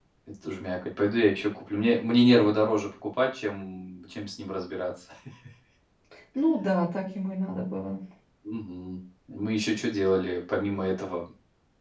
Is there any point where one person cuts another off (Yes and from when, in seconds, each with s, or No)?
No